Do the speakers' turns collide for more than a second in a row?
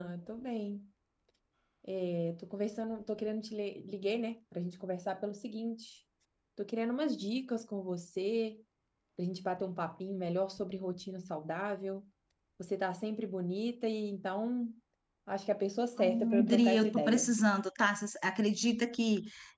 Yes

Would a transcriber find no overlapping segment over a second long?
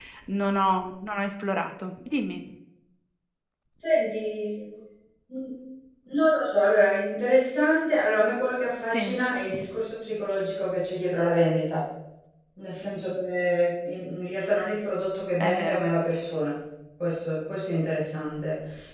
Yes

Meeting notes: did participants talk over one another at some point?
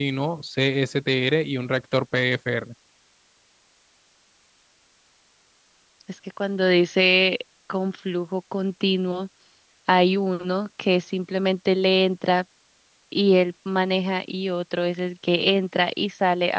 No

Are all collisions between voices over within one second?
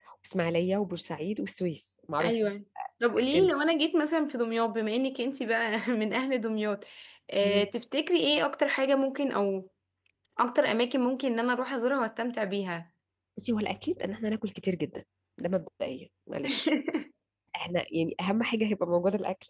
Yes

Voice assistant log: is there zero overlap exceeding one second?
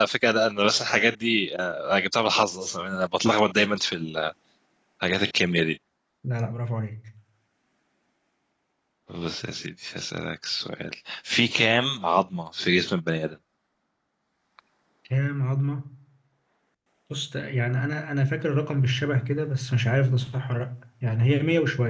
Yes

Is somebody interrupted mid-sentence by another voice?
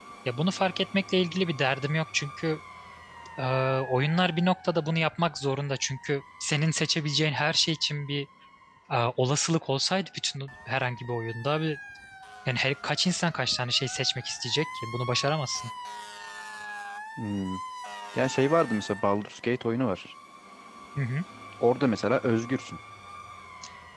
No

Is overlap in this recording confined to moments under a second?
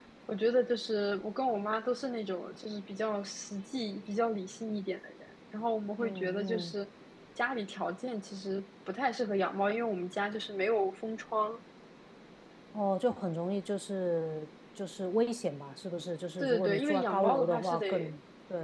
No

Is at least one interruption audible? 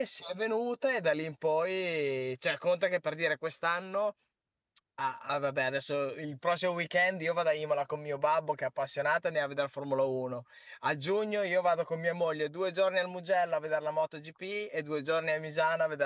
No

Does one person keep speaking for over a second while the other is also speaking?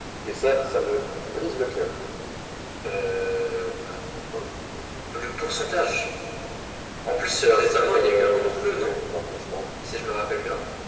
Yes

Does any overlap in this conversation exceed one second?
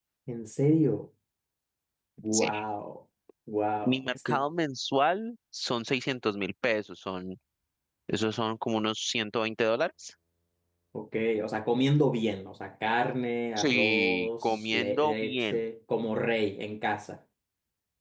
Yes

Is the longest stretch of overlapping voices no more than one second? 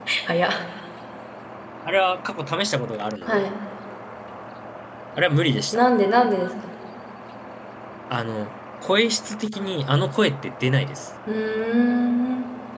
Yes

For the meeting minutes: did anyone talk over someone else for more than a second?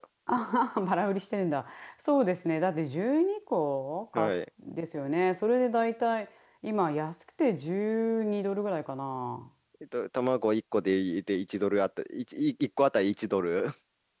No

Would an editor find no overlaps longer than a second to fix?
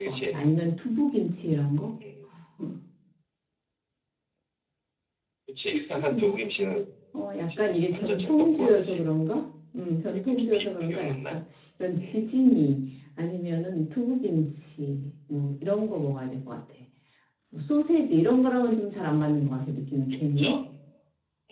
No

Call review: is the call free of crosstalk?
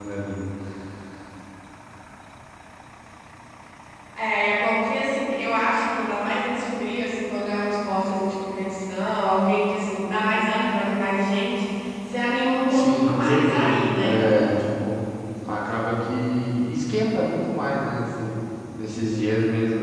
No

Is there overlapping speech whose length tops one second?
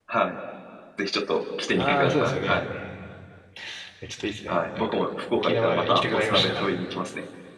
Yes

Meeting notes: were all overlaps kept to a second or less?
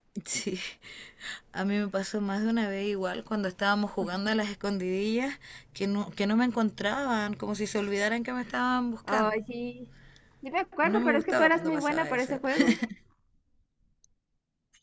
No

